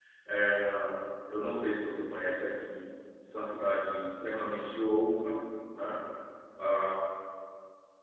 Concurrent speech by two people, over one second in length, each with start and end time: none

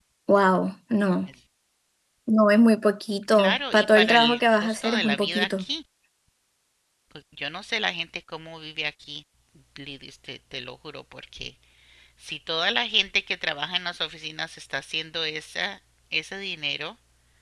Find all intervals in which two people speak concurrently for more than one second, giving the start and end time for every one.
3.3-5.6

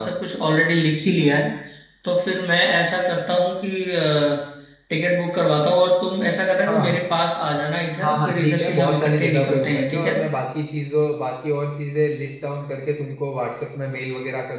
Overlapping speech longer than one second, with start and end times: 8.0-10.2

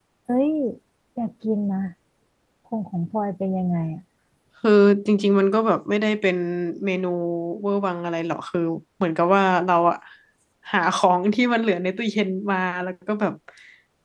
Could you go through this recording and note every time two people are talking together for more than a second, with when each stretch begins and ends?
none

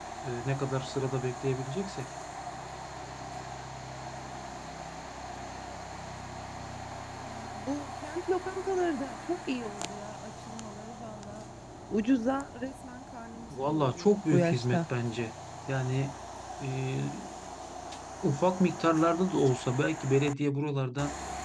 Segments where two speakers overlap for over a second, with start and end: 13.5-14.8

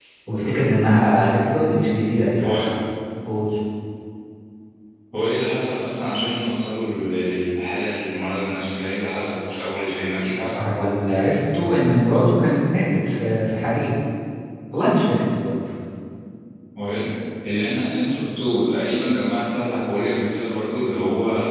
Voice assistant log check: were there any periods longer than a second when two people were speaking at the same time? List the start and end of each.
none

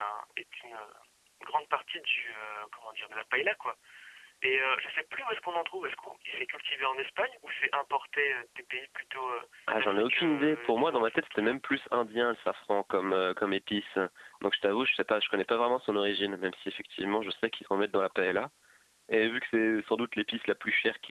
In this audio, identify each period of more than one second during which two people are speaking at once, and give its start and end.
9.8-11.5

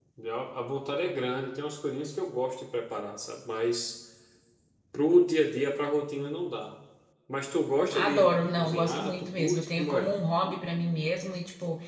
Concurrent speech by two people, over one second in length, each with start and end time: 7.9-10.1

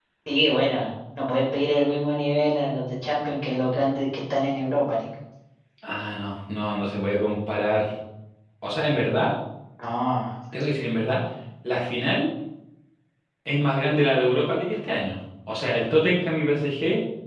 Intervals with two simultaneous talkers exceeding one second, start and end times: none

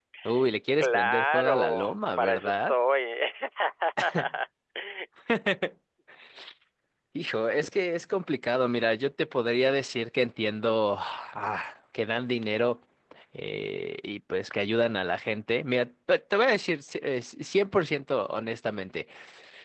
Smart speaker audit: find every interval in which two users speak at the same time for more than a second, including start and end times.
0.8-2.7

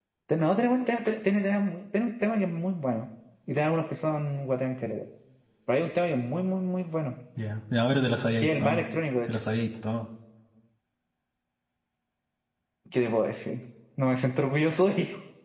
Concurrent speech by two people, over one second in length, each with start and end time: none

